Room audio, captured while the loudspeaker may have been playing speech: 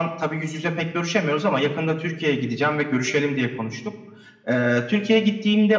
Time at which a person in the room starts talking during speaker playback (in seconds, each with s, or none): none